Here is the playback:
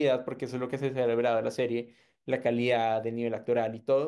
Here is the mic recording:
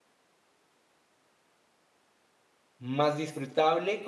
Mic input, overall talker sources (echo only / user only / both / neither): user only